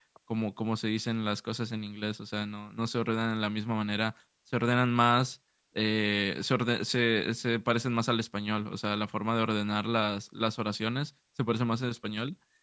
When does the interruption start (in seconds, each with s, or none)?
none